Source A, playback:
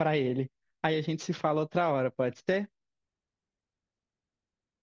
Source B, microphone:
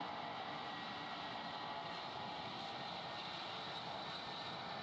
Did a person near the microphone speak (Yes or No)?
No